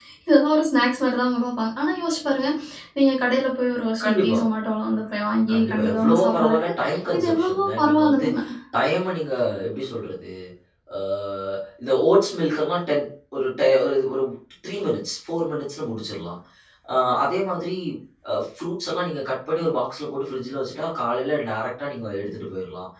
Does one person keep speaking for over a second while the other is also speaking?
Yes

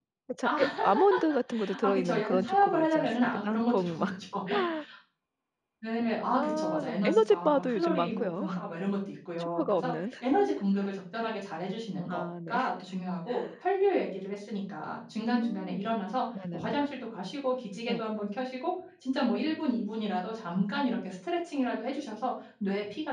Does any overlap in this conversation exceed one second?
Yes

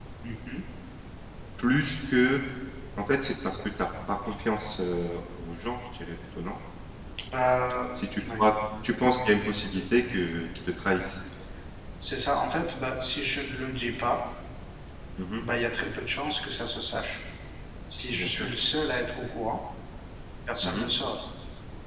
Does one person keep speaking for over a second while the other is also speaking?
No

